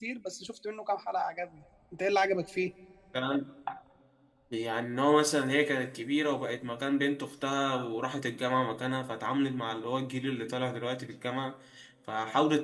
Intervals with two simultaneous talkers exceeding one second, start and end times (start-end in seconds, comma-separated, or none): none